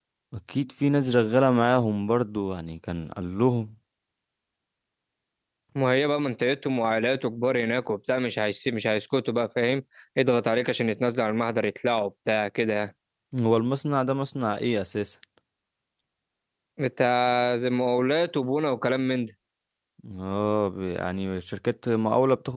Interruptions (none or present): none